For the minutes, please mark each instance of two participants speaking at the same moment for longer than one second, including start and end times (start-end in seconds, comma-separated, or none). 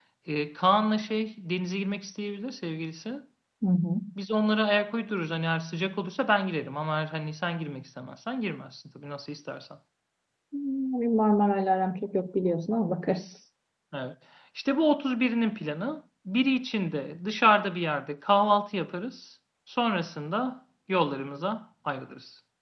none